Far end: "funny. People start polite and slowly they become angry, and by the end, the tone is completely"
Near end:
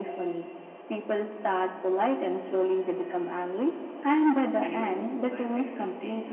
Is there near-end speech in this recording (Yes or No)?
Yes